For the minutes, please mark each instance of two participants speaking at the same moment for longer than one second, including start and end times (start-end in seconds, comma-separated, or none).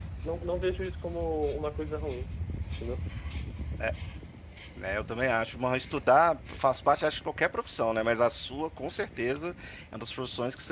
none